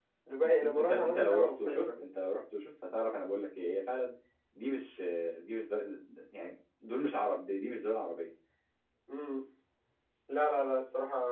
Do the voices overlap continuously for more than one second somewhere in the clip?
Yes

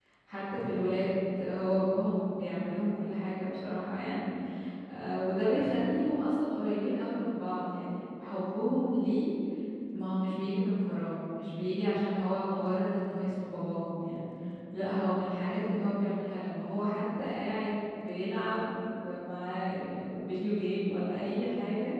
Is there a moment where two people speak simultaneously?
No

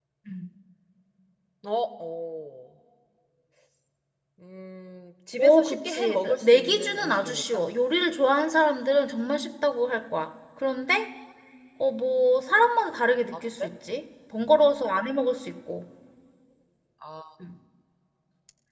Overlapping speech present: Yes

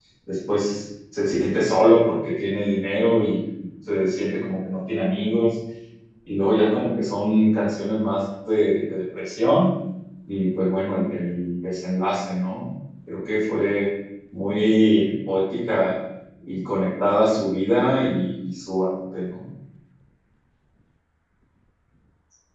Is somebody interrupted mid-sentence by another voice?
No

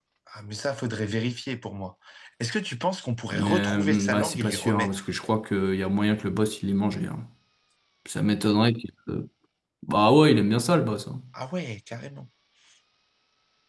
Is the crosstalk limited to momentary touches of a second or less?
No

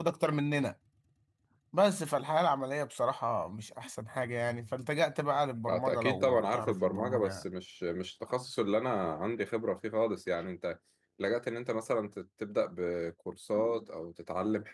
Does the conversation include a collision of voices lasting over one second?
Yes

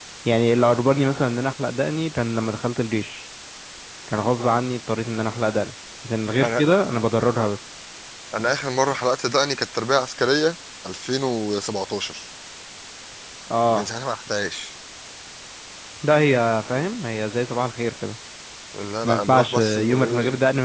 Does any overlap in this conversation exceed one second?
Yes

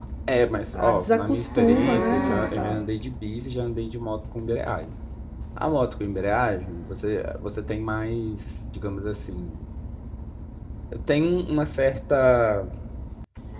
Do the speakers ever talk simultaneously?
Yes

